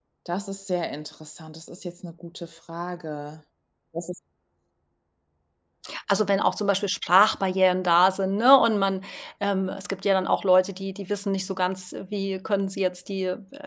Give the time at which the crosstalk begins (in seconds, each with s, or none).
none